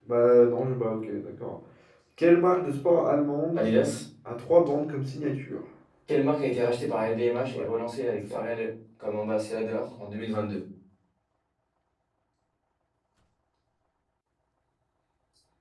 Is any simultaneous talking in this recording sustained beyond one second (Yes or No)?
No